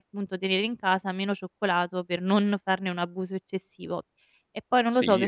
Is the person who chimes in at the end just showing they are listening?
No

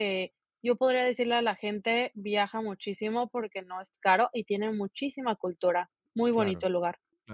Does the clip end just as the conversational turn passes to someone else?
Yes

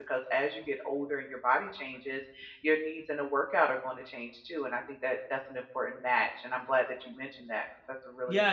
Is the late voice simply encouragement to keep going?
No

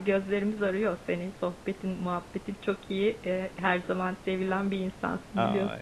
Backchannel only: No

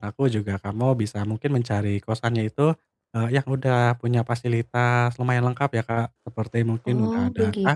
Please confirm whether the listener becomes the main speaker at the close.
No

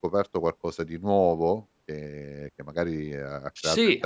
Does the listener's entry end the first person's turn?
Yes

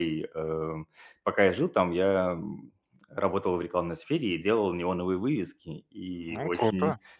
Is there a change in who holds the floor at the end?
No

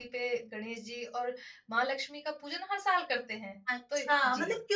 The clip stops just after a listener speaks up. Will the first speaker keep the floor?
No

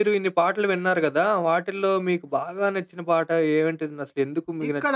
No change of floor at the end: No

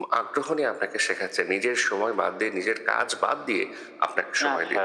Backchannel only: Yes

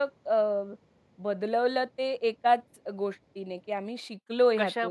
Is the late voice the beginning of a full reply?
No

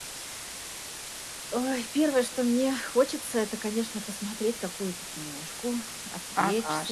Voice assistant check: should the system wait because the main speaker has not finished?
No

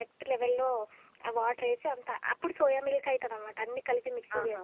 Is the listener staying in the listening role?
Yes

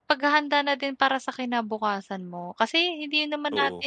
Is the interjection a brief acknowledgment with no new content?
Yes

